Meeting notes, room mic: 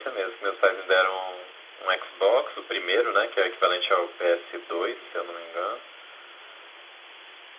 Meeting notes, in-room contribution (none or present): none